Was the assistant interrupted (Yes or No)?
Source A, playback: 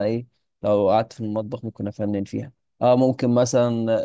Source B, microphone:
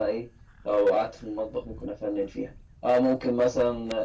No